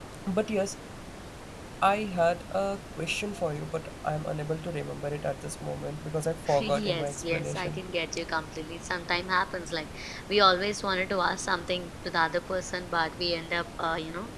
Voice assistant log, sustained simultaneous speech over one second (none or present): present